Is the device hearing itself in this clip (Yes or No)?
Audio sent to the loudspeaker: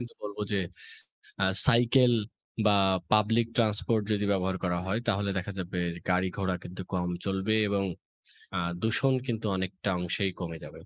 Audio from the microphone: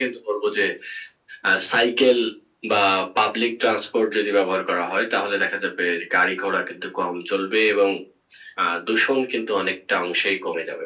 Yes